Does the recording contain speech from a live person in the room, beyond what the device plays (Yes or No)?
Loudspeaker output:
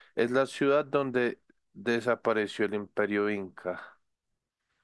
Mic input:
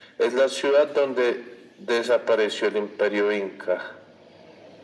No